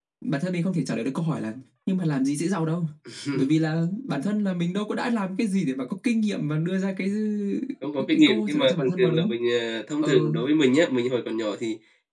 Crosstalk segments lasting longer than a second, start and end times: 8.0-9.3

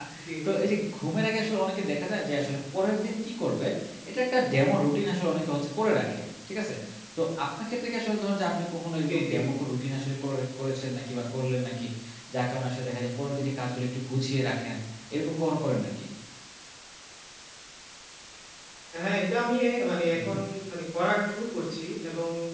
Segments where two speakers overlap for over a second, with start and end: none

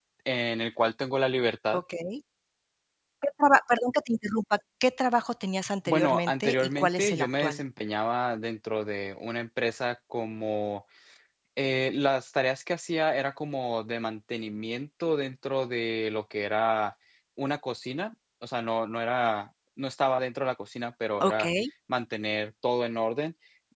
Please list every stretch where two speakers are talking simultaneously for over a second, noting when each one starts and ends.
5.9-7.6

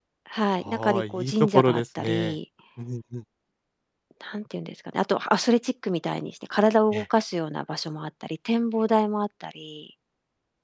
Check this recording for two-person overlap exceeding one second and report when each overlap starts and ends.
0.7-2.3

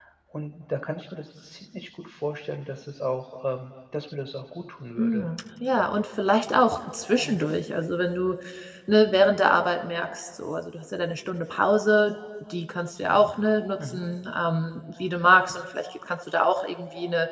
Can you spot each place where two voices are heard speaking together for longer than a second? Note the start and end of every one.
none

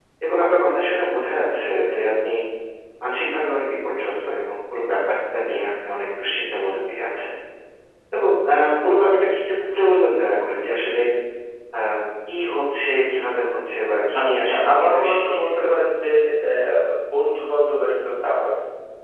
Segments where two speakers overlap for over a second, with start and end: 14.2-15.6

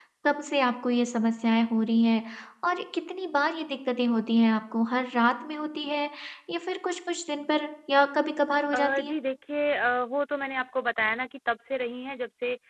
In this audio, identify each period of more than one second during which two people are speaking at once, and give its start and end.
none

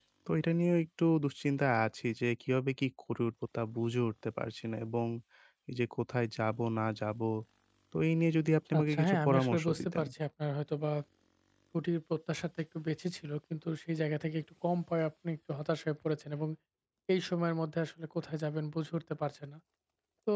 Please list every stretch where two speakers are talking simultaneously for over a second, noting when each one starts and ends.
8.8-10.1

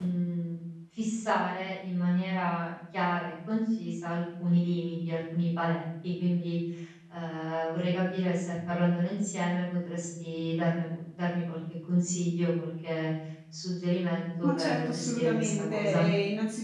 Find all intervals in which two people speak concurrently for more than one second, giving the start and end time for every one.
14.4-16.1

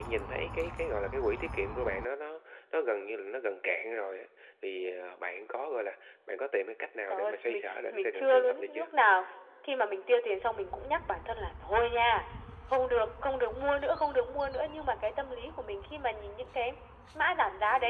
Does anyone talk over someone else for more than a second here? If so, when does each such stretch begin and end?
7.1-8.9

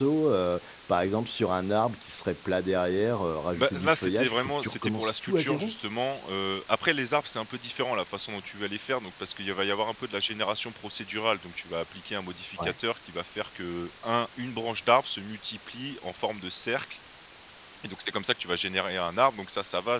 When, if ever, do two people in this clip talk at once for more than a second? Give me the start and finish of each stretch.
3.6-5.8

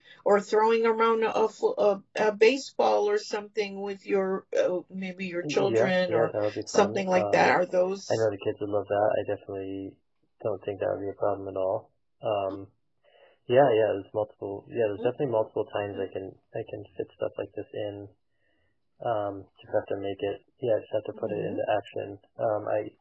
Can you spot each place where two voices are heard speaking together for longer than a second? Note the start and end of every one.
5.4-7.5

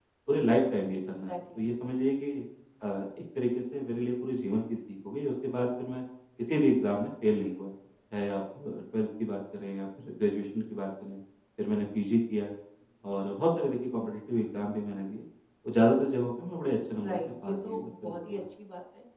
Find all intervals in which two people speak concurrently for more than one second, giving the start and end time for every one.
17.0-18.4

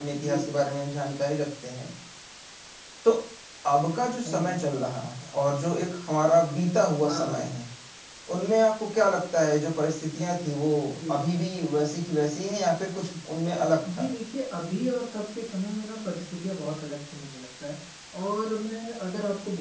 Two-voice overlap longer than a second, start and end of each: none

